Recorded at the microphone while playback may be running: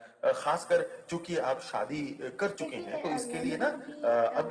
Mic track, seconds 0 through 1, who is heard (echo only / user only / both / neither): echo only